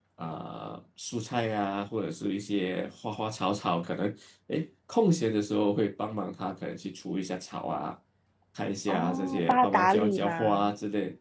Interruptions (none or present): present